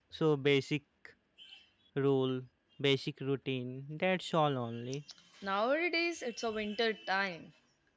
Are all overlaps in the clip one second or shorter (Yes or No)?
Yes